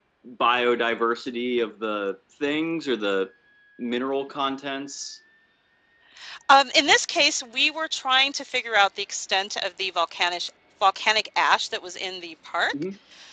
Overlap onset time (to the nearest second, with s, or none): none